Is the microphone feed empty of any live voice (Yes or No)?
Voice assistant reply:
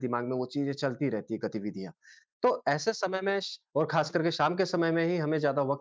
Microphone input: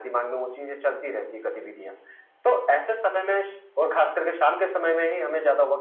Yes